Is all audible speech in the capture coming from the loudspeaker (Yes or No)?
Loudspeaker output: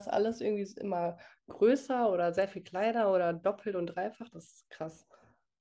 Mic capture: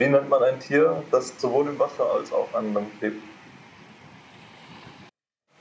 No